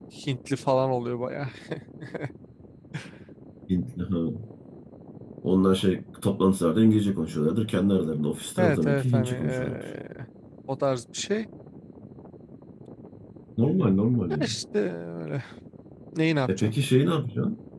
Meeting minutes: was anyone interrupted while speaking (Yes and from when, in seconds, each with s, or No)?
Yes, from 8.6 s